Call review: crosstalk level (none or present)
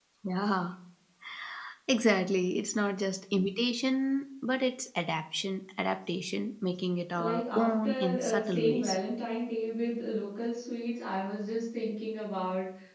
present